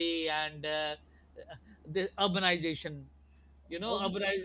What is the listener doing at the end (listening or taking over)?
listening